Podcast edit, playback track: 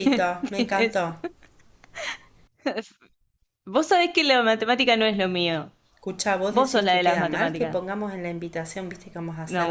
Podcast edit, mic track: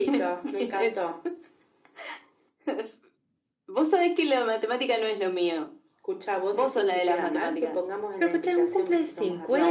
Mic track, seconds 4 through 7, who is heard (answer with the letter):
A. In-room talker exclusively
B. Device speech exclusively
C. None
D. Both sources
B